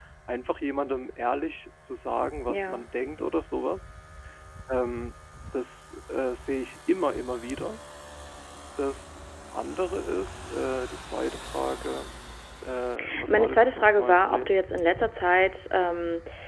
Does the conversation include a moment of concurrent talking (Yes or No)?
Yes